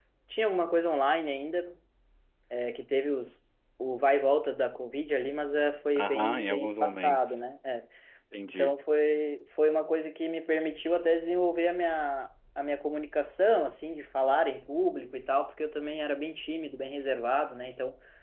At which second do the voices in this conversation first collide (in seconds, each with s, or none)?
6.0 s